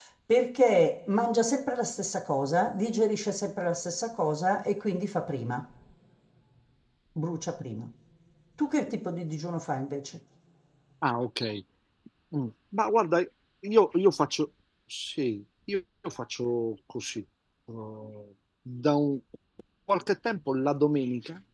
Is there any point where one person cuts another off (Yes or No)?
No